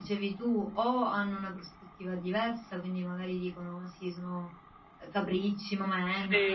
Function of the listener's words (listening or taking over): listening